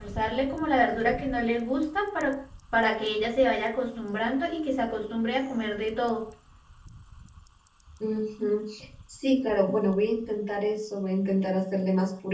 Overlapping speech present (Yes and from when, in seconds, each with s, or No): No